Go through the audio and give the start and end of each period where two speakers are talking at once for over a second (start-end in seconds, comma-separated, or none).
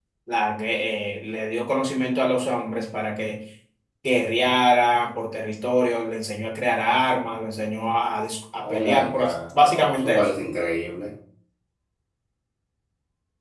8.6-10.3